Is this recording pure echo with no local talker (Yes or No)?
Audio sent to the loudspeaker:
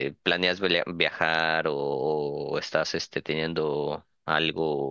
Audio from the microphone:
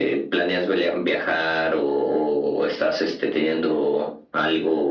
Yes